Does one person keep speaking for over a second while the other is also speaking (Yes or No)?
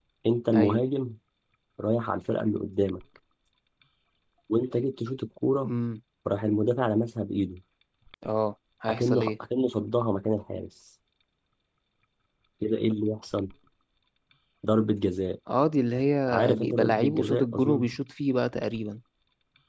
Yes